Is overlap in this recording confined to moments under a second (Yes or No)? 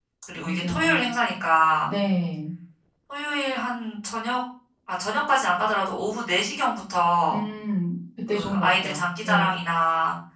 No